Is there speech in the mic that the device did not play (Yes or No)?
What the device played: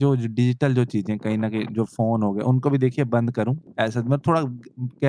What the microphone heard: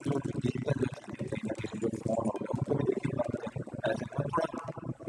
No